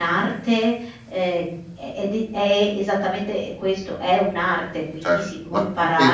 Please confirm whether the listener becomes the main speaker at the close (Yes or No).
Yes